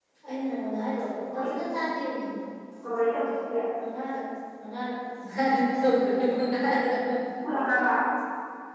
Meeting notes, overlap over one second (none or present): none